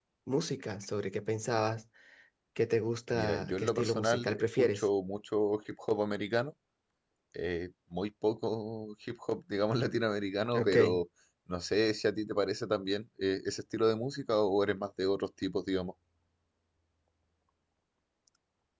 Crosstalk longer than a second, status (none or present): present